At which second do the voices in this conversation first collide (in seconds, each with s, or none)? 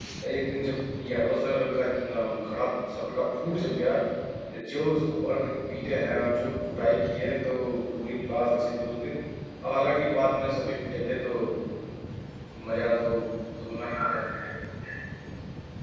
none